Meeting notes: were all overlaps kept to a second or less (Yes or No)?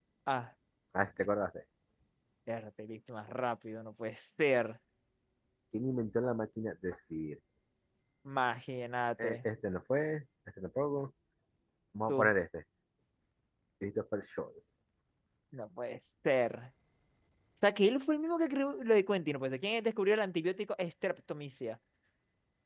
Yes